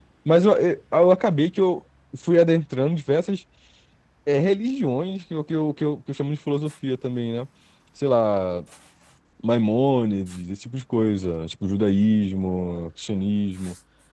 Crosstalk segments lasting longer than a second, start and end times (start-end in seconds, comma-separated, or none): none